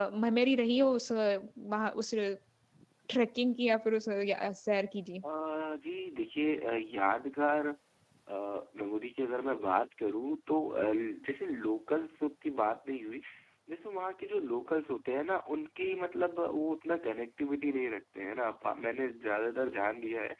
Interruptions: none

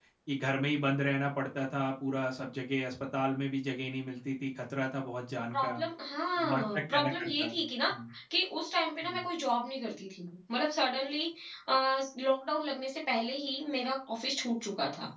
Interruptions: present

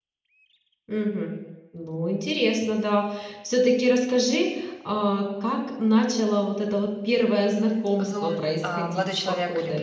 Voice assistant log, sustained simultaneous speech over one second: present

